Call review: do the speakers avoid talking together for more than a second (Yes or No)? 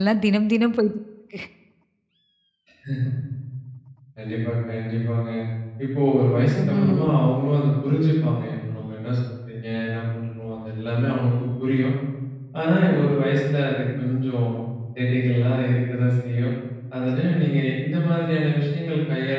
Yes